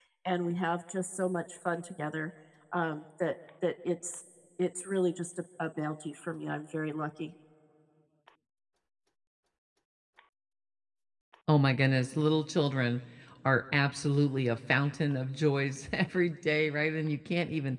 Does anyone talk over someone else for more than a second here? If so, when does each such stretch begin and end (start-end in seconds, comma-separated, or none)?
none